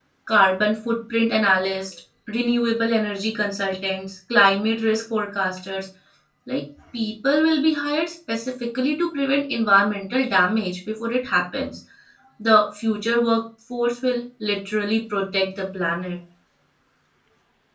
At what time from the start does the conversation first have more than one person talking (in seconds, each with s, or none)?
none